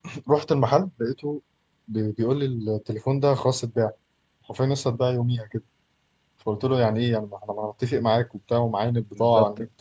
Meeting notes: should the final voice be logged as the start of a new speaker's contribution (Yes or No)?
Yes